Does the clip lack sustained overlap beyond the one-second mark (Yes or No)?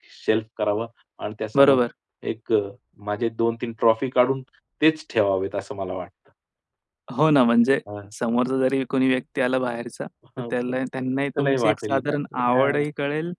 No